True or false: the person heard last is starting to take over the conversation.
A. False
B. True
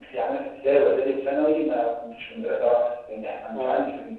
A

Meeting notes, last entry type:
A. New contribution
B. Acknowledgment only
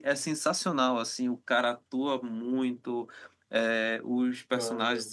B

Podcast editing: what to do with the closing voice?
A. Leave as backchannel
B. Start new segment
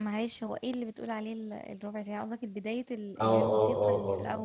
B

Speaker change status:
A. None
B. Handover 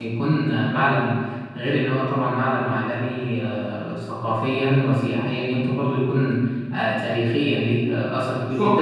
B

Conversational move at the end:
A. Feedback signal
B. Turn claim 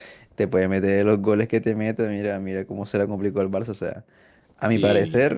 A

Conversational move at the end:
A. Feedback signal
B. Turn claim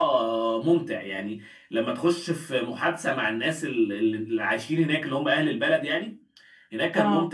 A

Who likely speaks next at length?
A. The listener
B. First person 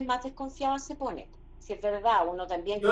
B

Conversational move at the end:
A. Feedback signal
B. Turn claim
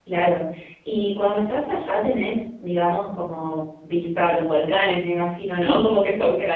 B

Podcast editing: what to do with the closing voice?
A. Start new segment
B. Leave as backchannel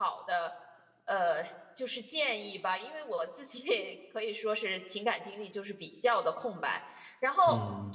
B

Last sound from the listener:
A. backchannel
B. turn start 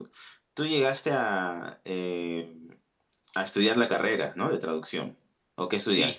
B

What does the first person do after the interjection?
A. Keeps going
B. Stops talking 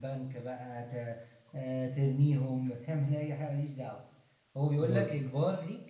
A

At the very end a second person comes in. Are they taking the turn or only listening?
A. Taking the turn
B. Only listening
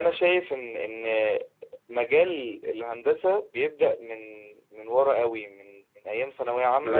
B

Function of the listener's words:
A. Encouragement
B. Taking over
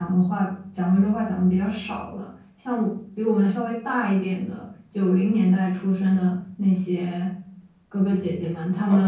B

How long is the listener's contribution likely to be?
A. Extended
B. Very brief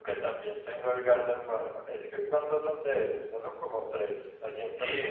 A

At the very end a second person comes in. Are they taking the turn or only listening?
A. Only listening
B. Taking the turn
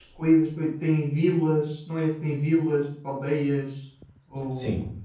B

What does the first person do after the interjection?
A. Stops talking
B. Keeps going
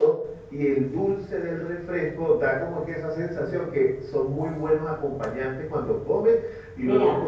B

